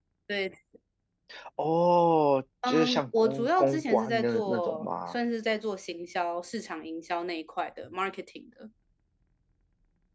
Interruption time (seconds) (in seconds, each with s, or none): 2.6 s